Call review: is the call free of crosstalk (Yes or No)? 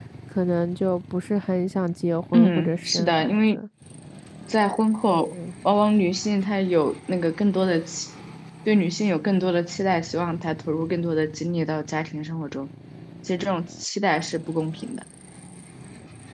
No